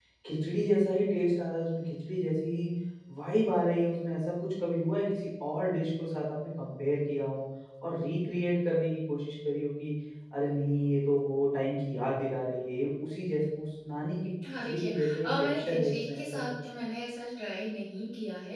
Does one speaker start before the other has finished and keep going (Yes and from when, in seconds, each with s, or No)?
Yes, from 14.4 s